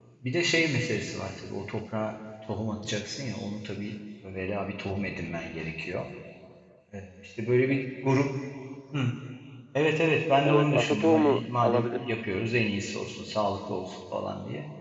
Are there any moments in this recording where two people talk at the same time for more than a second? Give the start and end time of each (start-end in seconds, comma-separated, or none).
10.4-12.1